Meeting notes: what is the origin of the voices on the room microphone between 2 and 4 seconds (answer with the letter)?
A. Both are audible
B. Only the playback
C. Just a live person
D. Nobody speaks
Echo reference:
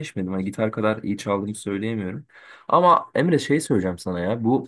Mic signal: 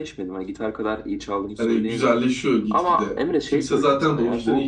A